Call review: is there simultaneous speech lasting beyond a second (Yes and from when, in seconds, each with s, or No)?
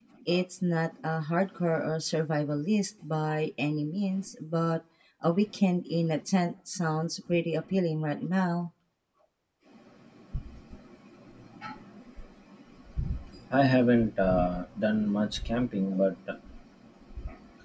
No